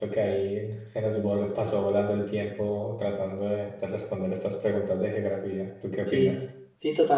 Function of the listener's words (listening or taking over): taking over